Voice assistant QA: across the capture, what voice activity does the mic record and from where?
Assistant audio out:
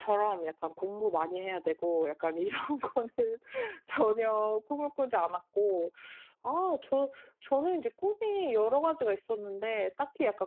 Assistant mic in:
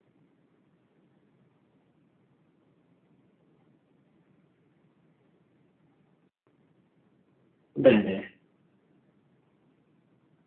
user only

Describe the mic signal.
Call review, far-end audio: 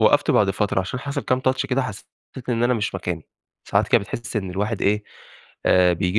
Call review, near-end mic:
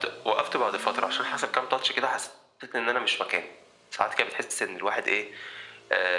echo only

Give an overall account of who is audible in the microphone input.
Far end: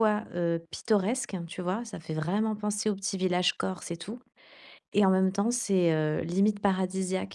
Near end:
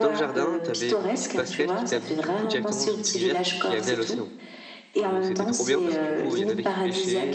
both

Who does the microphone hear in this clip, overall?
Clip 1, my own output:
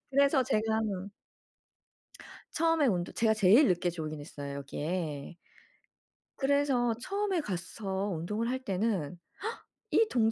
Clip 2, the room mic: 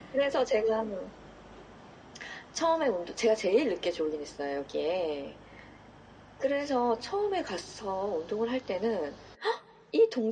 echo only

